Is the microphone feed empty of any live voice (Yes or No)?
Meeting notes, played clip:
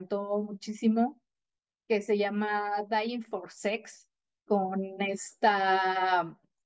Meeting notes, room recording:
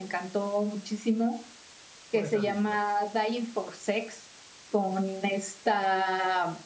No